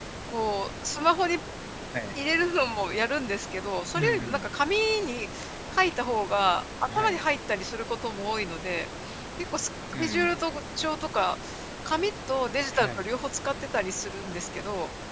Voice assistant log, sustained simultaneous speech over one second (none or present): none